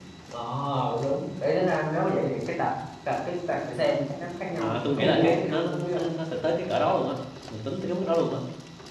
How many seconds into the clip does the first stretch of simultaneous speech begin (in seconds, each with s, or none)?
4.6 s